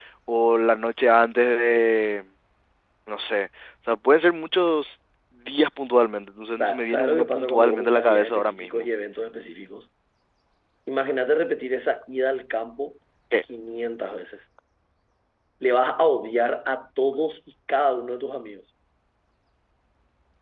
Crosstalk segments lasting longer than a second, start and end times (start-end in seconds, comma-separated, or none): 6.6-8.8